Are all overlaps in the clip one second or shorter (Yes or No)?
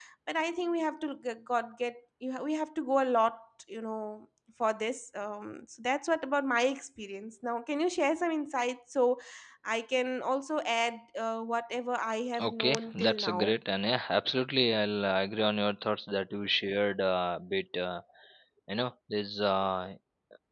No